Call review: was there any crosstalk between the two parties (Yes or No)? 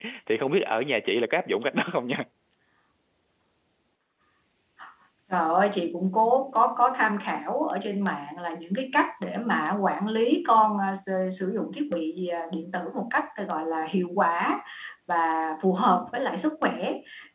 No